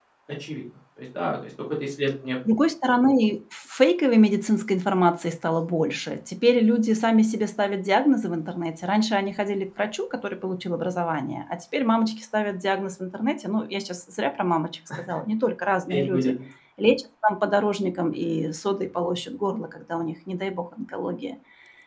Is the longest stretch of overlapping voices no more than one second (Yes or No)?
Yes